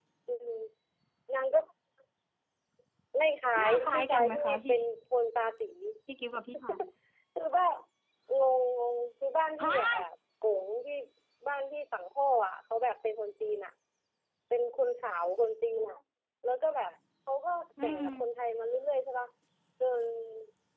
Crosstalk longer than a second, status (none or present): present